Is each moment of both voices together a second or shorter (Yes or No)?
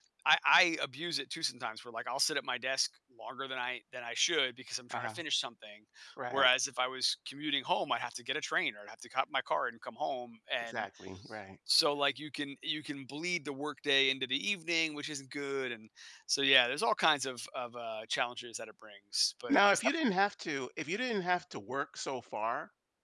Yes